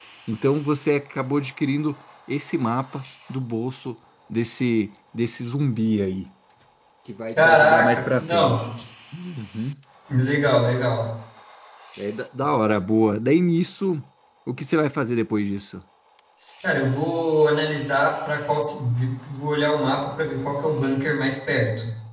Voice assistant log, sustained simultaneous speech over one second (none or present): present